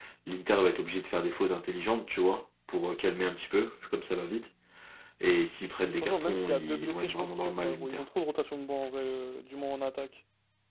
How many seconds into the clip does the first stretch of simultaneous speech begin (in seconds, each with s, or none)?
5.7 s